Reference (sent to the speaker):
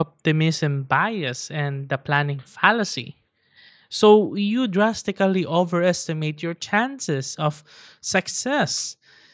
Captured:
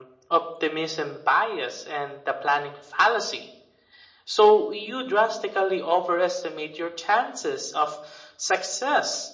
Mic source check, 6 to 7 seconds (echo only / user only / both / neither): echo only